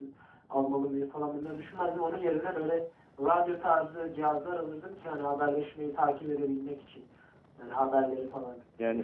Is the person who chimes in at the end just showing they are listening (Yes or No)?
No